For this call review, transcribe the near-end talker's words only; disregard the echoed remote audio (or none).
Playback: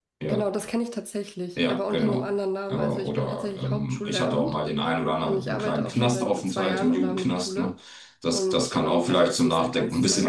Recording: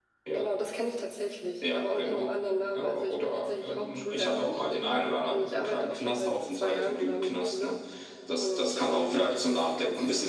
none